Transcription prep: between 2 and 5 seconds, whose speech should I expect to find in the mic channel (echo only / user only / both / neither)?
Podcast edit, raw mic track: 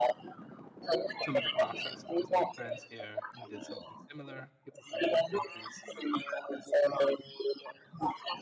both